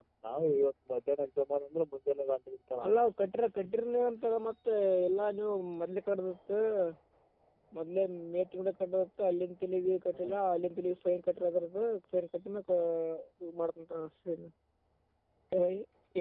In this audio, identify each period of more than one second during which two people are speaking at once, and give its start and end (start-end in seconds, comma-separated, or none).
none